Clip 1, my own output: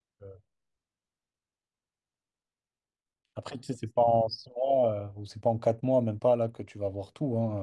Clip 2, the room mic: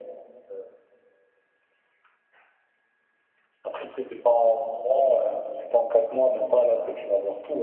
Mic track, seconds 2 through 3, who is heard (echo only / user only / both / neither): neither